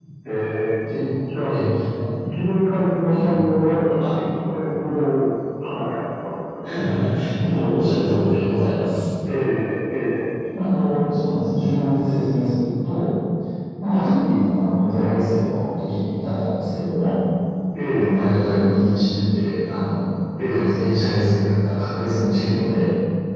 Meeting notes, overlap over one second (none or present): none